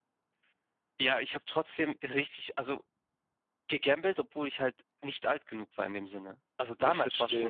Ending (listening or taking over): listening